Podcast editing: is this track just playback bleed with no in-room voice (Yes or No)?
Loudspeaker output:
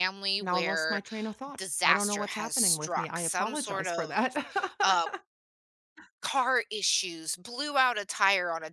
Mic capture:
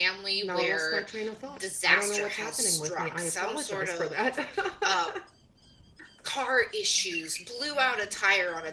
Yes